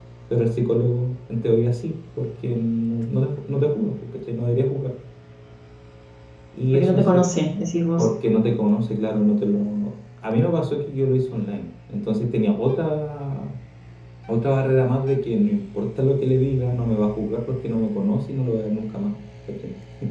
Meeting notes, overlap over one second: none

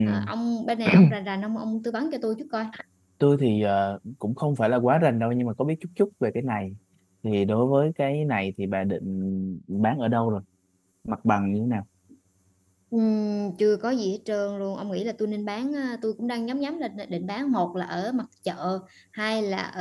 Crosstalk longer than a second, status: none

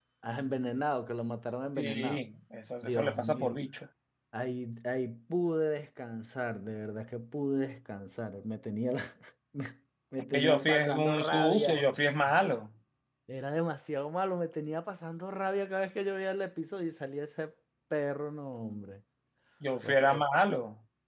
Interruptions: present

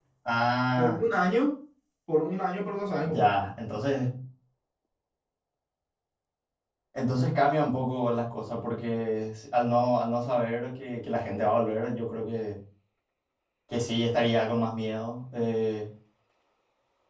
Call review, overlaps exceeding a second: none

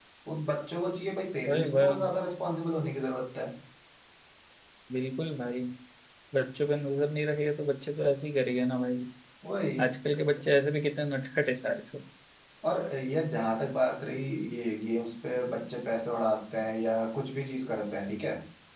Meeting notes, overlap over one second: none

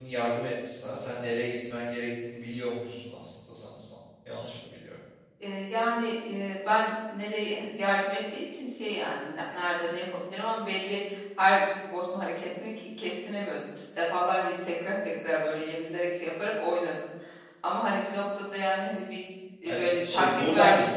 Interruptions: present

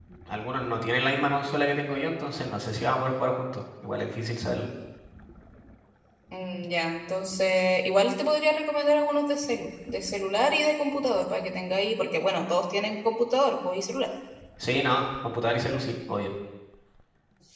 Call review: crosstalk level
none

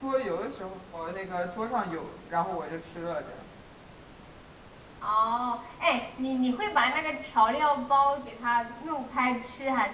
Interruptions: none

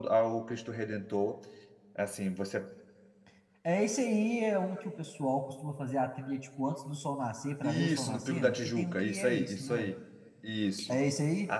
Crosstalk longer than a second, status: present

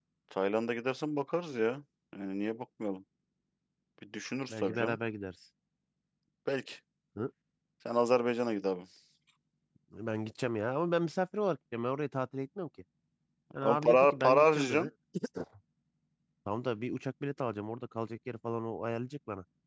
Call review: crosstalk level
present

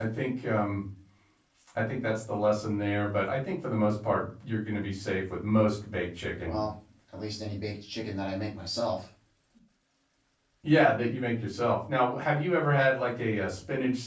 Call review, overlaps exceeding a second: none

